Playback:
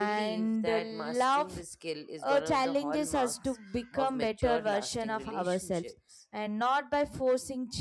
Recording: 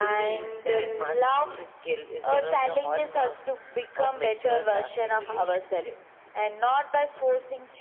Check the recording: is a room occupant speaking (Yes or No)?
No